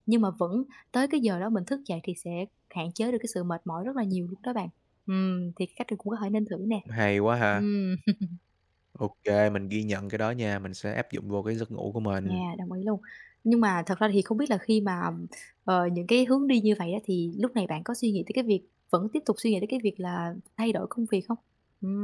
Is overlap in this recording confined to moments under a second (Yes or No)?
Yes